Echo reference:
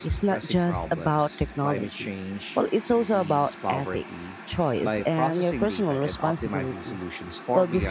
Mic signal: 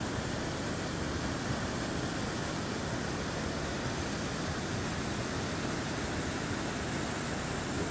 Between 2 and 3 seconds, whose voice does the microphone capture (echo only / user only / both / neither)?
neither